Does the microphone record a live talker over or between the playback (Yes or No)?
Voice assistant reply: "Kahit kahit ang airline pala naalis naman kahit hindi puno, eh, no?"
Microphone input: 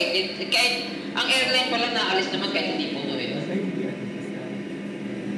Yes